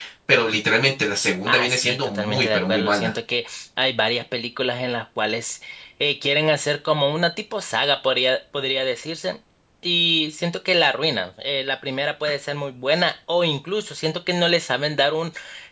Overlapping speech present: Yes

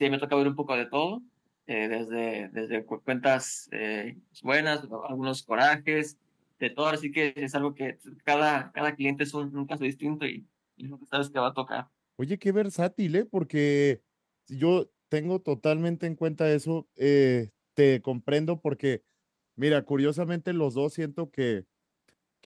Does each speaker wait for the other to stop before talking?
Yes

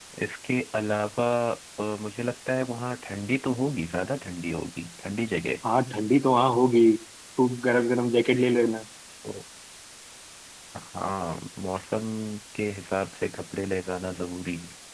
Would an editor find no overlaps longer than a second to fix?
Yes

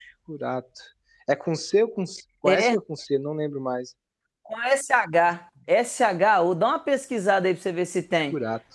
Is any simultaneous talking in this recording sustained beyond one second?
No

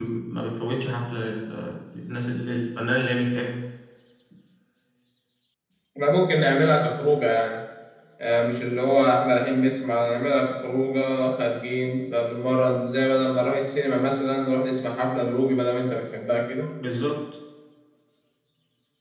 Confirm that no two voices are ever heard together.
Yes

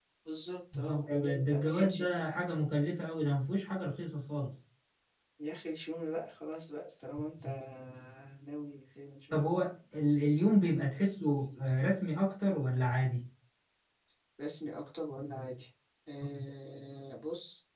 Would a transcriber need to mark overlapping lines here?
Yes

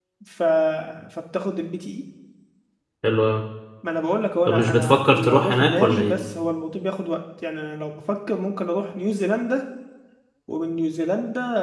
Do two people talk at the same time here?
Yes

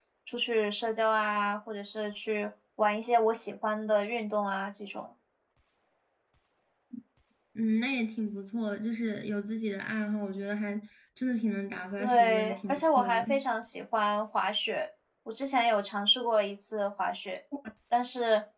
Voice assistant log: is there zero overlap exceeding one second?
No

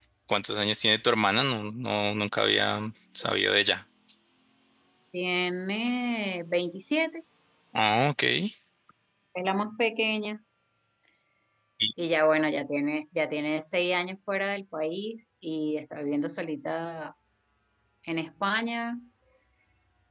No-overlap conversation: Yes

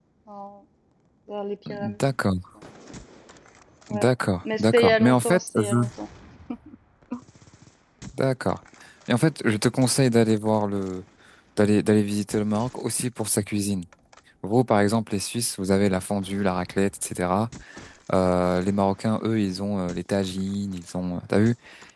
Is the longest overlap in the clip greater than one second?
Yes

